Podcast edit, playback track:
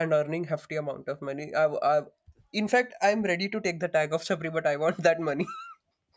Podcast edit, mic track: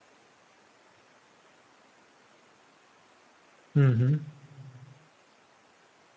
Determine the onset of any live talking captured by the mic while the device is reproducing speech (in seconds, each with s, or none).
3.7 s